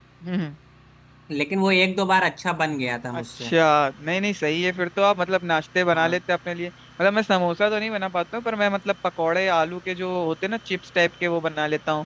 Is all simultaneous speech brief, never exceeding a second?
Yes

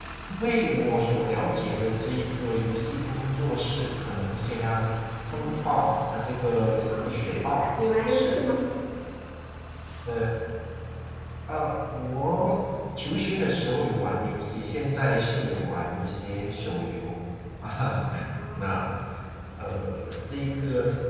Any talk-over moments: Yes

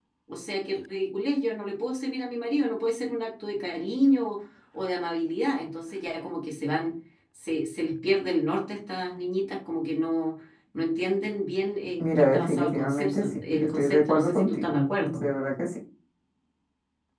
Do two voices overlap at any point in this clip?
Yes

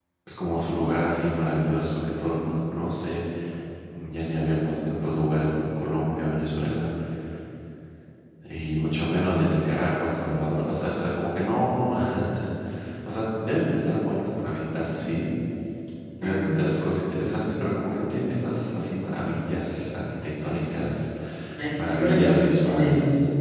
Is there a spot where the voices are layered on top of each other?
Yes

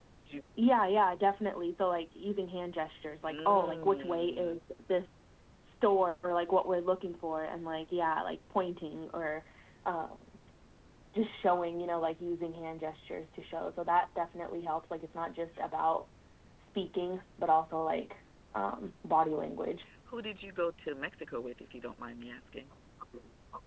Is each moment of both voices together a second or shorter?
No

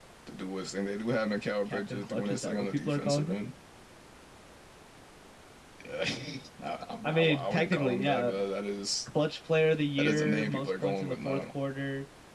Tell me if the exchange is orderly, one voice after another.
No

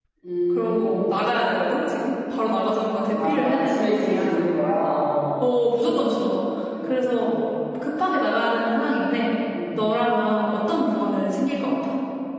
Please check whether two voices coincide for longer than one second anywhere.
Yes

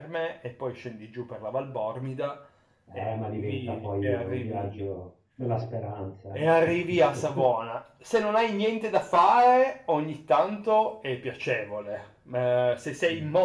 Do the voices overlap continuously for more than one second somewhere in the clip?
Yes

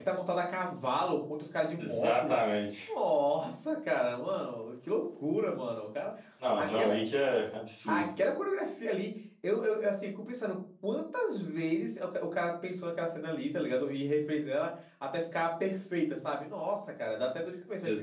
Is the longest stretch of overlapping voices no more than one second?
Yes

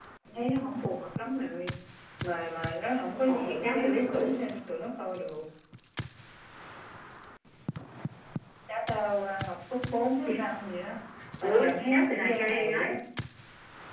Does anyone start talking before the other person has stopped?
Yes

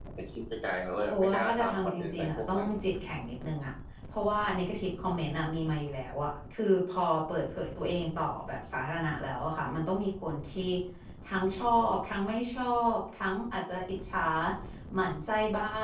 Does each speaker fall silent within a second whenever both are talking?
No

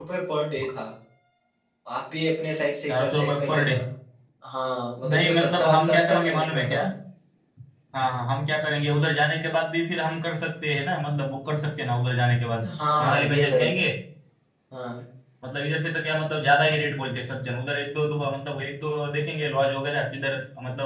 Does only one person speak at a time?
No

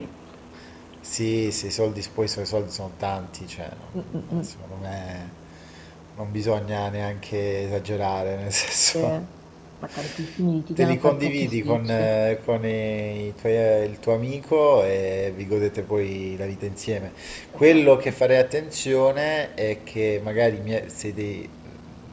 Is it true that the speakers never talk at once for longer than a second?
No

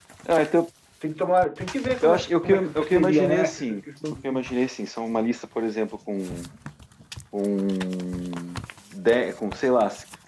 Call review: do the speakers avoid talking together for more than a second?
No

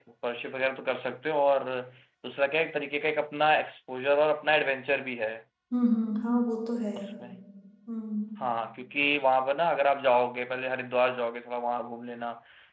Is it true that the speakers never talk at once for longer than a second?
Yes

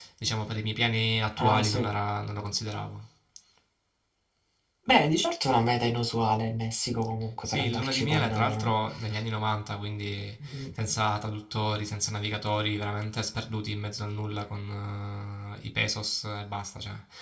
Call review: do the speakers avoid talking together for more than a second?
No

